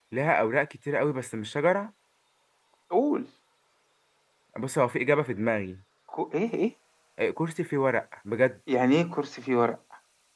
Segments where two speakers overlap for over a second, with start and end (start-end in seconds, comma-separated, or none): none